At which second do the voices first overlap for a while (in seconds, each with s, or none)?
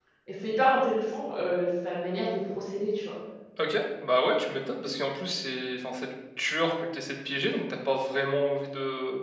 none